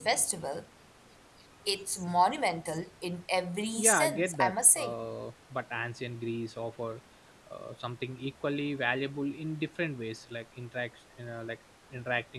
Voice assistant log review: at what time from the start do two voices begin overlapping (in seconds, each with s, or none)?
3.7 s